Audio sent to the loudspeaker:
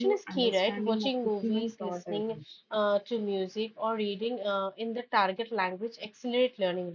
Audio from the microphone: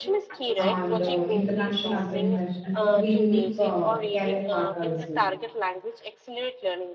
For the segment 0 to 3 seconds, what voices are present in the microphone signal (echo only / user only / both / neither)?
both